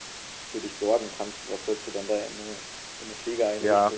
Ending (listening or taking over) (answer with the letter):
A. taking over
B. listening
A